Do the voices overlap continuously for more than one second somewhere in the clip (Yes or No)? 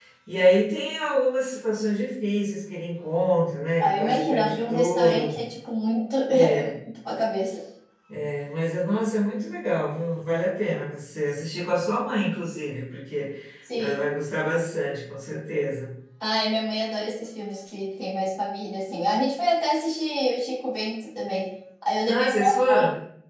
Yes